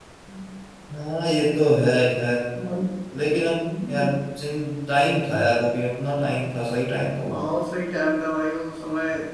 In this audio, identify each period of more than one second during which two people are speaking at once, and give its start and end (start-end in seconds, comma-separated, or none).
none